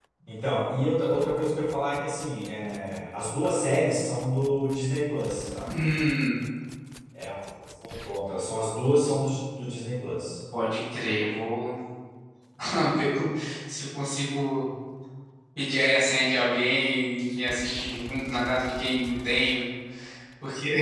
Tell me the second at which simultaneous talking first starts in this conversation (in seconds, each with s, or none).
none